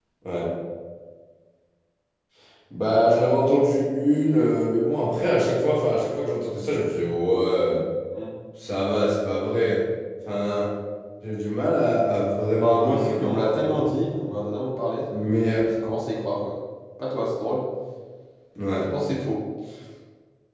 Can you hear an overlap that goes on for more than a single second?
Yes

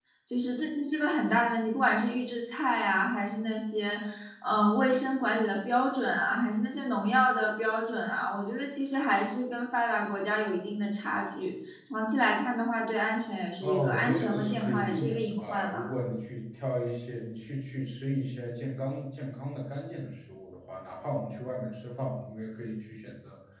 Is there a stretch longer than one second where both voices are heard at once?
Yes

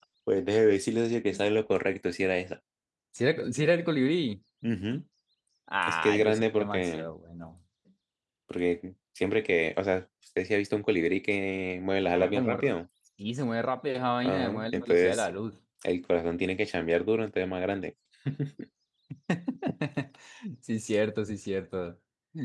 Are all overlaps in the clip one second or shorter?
No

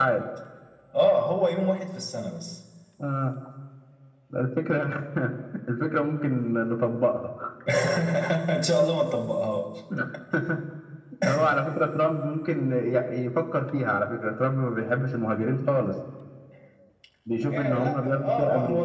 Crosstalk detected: Yes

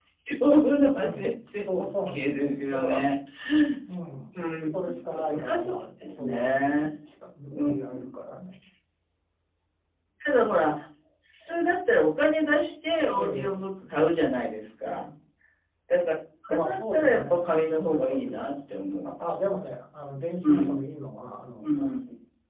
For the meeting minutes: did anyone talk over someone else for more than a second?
Yes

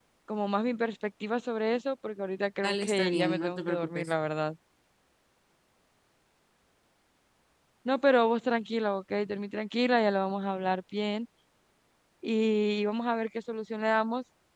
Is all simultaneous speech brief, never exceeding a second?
No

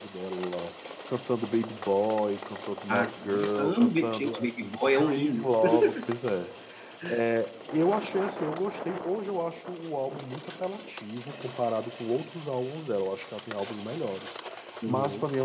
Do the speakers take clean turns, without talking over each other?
No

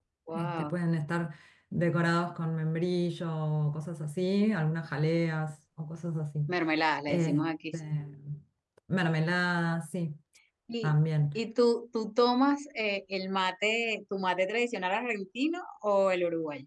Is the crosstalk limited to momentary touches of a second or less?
Yes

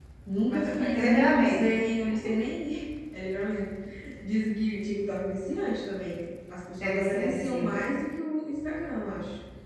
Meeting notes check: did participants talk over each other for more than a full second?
Yes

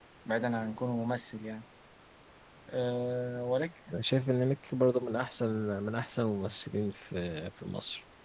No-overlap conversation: Yes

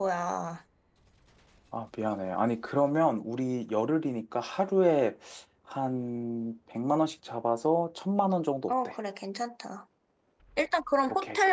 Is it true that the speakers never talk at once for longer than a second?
Yes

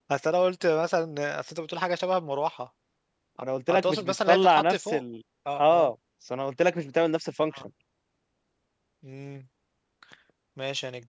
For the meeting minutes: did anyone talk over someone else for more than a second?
Yes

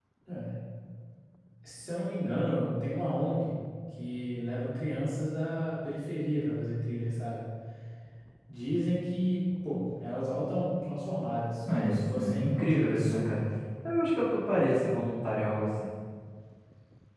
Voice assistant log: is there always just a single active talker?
No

